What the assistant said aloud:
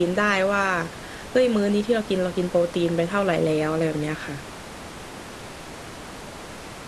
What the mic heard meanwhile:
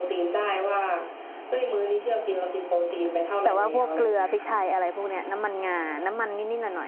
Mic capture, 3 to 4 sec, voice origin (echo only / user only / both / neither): both